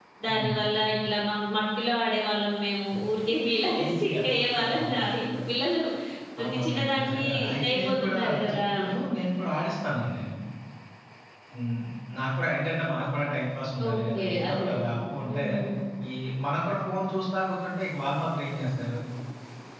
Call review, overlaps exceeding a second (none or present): present